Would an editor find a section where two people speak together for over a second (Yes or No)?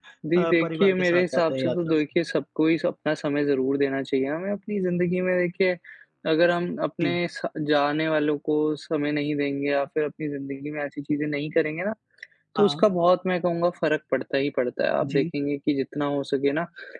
Yes